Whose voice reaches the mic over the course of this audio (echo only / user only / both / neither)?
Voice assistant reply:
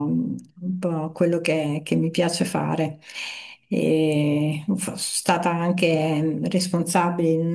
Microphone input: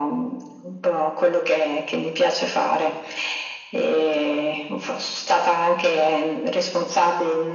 echo only